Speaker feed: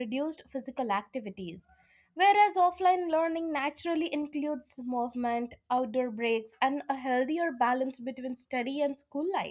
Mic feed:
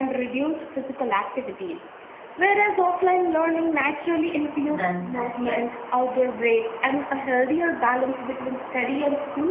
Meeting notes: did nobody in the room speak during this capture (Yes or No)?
No